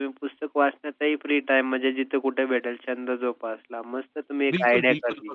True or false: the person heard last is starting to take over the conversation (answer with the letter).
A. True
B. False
A